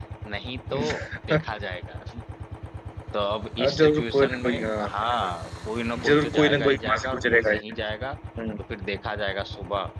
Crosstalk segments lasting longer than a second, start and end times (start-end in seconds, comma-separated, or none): 3.6-4.9, 6.1-7.6